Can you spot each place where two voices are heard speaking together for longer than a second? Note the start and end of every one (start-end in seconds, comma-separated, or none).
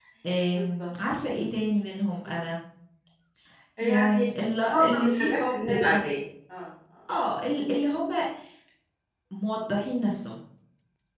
4.7-6.0